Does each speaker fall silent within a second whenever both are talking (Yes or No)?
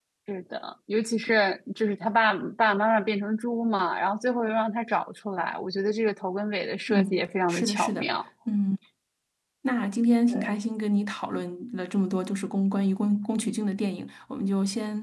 No